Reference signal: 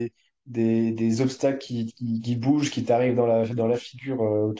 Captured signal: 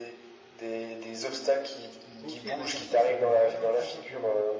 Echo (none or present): present